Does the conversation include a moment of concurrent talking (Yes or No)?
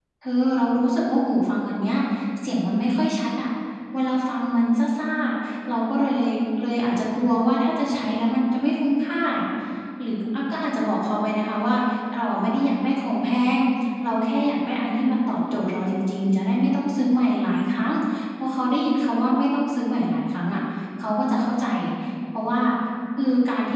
No